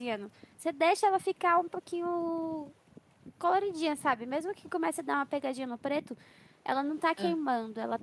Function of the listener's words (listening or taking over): listening